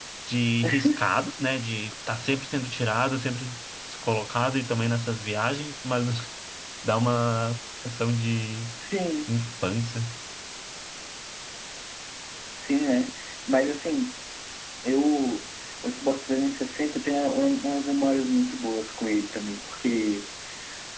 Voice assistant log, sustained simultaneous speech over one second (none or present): none